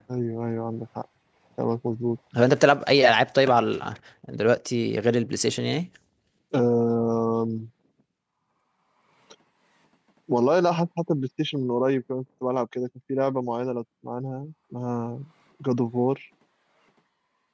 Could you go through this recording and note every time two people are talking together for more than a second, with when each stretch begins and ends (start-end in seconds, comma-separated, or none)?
none